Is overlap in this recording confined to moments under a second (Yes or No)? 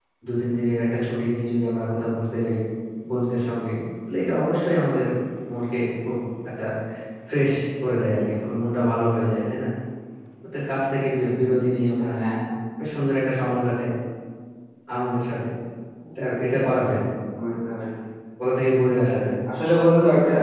Yes